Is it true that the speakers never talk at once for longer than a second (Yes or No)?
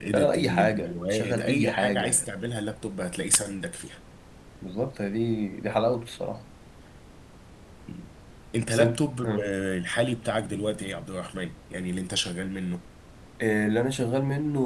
No